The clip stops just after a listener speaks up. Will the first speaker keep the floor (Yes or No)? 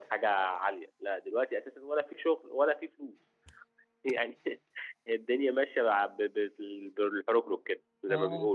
No